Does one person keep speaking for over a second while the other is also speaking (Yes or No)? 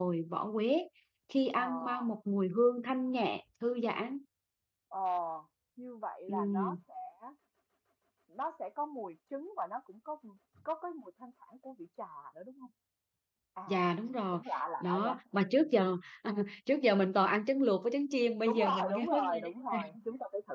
Yes